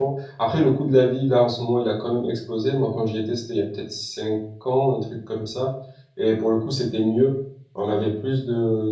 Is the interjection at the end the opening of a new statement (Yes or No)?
No